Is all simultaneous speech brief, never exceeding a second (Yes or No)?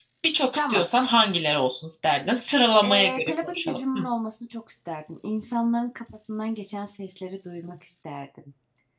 No